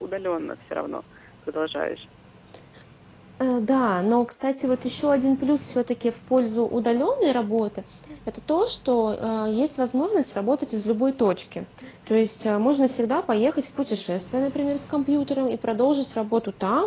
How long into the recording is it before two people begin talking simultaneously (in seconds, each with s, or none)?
none